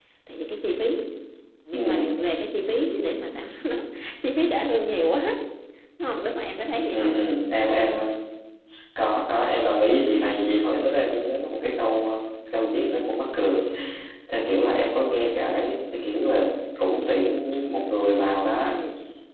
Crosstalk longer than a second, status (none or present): none